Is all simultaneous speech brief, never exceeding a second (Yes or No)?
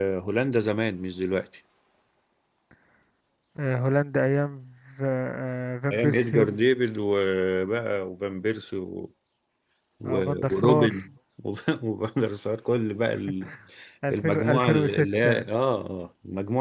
No